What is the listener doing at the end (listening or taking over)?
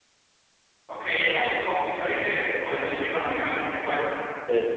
taking over